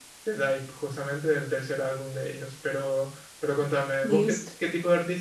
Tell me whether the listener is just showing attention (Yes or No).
Yes